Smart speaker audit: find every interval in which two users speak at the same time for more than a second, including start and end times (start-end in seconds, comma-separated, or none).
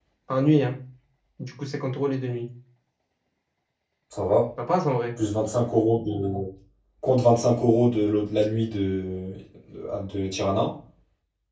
none